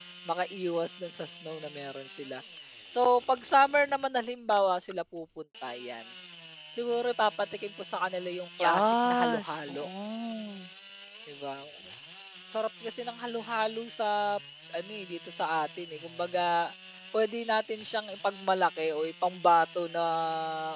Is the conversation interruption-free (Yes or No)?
No